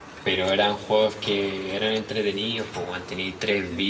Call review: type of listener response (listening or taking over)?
listening